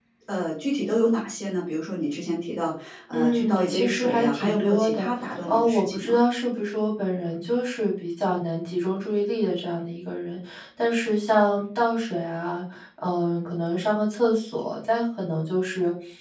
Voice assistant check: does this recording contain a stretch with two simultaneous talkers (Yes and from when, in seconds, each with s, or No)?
Yes, from 3.1 s